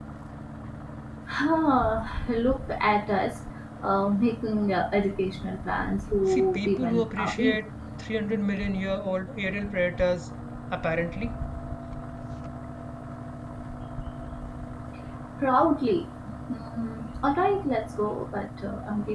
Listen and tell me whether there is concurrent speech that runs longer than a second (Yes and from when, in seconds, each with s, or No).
Yes, from 6.3 s